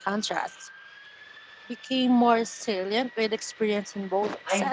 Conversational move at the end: taking over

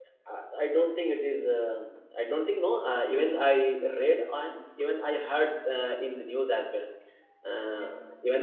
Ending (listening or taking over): listening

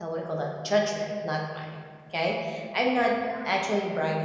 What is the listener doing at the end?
listening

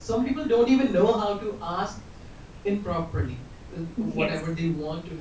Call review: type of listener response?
listening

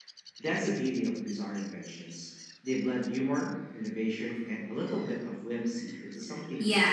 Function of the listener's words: taking over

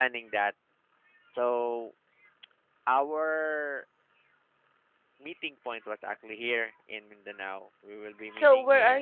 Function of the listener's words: taking over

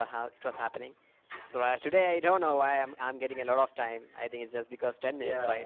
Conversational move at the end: taking over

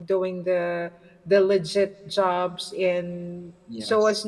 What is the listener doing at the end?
listening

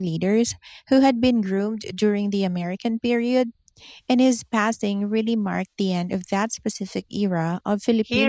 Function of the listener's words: taking over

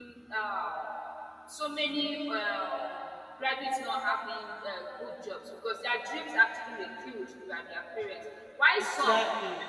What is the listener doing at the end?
listening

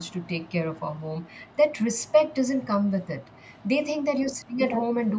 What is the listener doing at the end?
listening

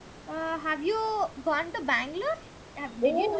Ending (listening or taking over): taking over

